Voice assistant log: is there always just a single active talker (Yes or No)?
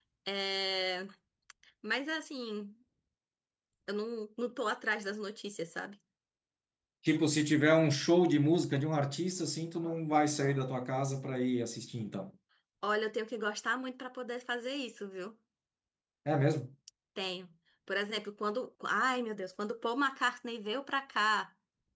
Yes